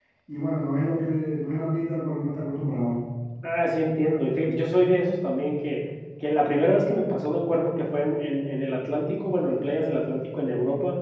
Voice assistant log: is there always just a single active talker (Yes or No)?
Yes